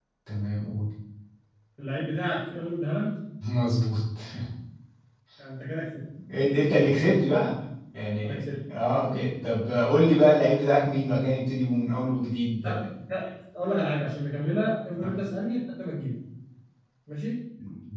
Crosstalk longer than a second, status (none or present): none